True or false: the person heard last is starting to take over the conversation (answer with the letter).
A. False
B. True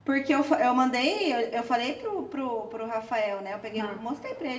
A